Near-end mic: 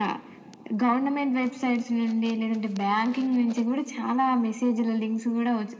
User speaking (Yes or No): No